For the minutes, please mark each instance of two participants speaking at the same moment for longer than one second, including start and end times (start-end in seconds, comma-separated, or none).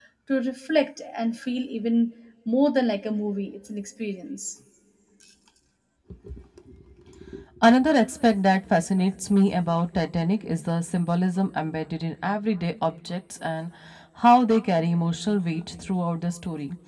none